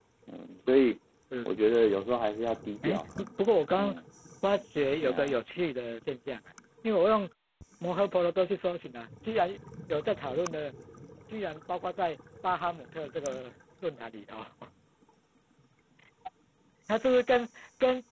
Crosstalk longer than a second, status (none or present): none